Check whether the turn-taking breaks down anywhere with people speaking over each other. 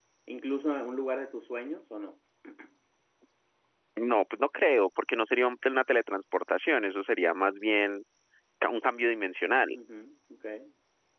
No

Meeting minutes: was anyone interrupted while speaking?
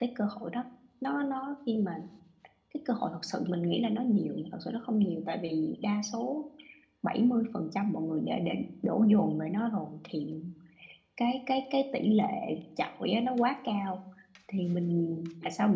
No

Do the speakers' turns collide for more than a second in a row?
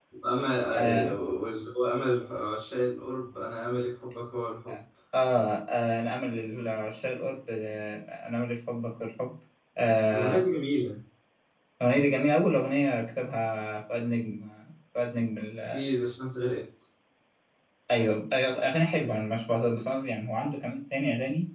No

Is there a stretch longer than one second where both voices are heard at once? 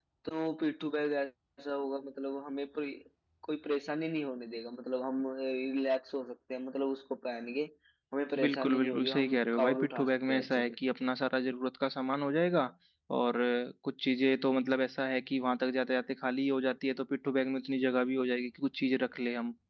Yes, from 8.4 s

